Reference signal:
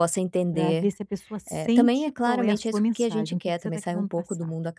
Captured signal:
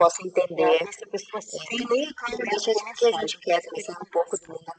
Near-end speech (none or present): none